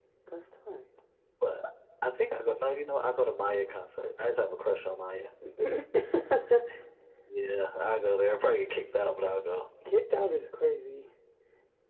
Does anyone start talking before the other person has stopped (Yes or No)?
No